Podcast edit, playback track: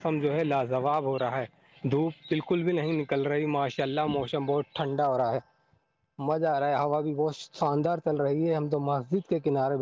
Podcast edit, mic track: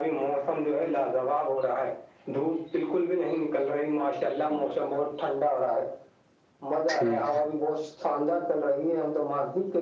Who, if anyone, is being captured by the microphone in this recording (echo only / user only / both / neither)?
both